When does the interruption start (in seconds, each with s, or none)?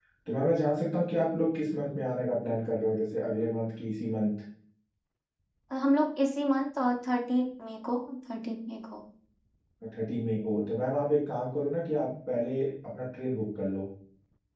none